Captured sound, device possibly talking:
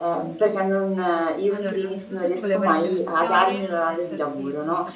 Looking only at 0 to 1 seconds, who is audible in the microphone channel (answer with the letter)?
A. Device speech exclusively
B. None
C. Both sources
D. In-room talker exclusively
A